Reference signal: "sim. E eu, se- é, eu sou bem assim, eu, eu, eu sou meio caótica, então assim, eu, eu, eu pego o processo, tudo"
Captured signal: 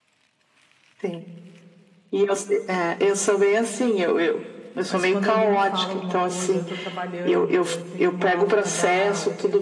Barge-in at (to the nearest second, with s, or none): 5 s